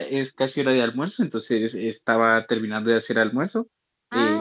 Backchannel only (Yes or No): Yes